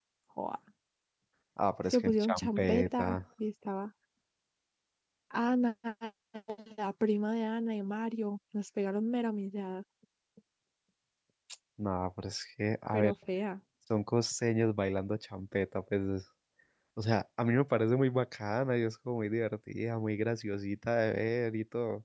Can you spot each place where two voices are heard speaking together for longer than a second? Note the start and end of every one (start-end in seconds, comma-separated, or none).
1.9-3.2